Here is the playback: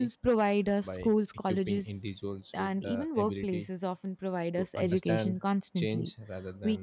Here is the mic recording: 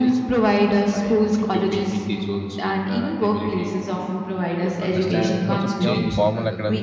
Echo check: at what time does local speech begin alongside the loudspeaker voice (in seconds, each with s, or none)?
5.4 s